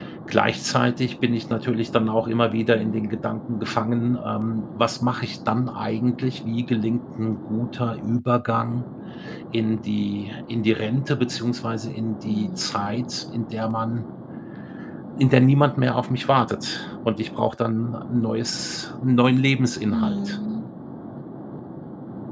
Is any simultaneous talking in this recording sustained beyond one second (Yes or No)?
No